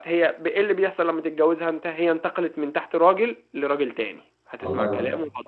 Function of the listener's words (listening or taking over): listening